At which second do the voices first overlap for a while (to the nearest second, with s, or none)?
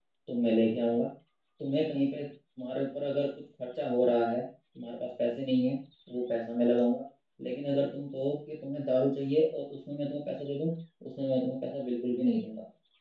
none